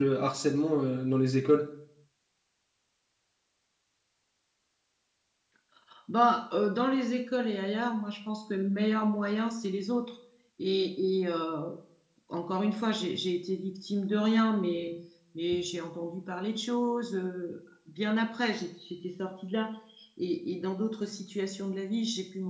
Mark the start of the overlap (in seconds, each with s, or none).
none